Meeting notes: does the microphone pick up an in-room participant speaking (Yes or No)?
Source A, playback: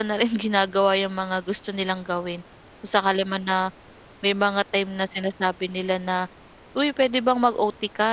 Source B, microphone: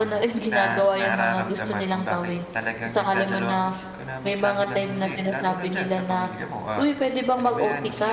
Yes